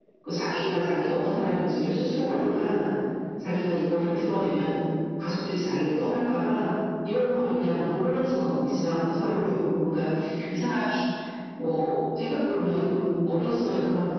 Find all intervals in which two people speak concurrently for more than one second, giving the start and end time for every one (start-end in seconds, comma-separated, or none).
none